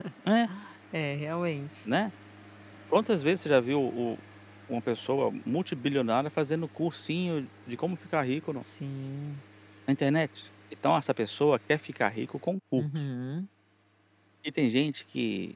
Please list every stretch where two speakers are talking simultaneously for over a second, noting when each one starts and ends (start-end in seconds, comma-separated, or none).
none